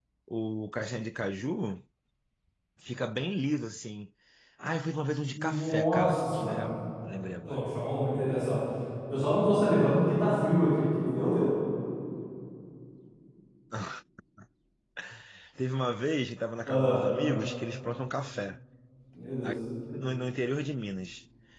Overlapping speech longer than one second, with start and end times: 5.3-6.6

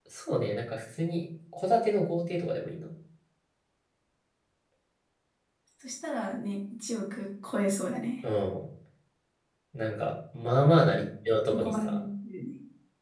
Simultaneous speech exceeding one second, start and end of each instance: none

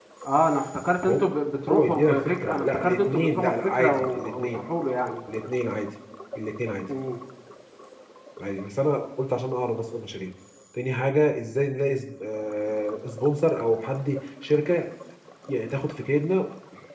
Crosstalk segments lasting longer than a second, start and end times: 1.7-4.5

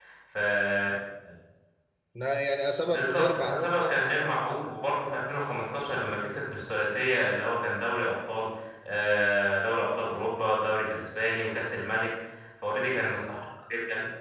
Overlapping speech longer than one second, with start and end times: 2.9-4.3

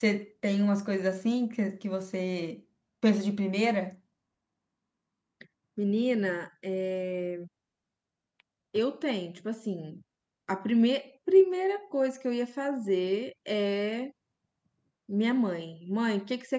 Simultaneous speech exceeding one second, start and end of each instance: none

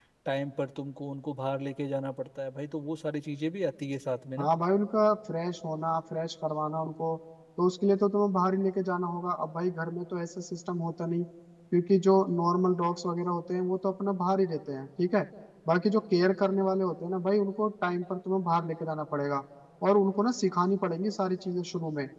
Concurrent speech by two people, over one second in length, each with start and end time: none

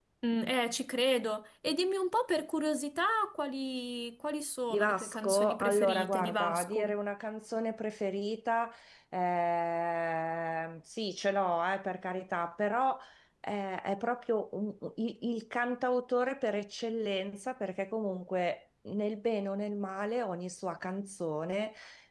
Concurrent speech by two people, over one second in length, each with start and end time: 4.7-7.0

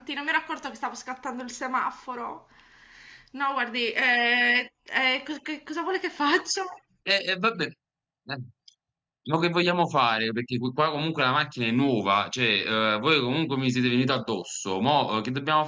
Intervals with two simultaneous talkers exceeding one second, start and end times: none

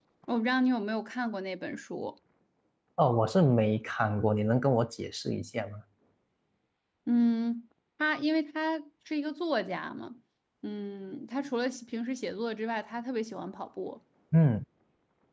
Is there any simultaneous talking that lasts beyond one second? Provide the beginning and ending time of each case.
none

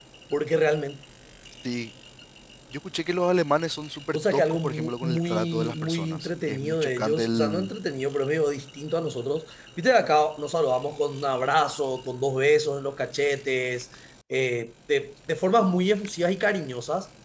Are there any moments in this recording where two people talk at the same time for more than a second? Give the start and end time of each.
4.1-7.7

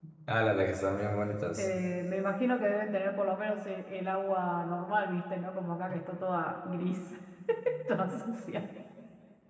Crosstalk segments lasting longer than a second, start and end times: none

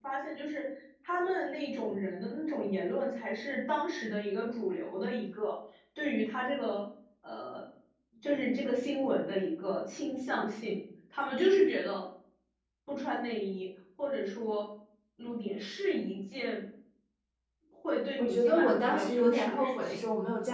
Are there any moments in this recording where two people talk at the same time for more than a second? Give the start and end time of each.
18.2-20.0

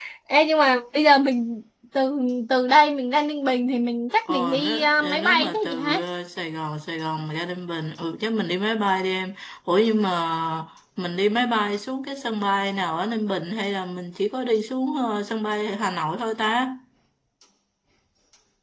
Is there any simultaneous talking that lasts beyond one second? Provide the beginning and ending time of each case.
4.3-6.0

